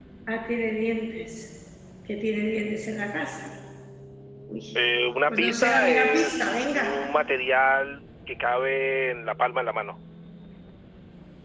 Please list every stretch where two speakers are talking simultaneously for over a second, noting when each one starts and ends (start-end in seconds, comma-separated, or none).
5.3-7.0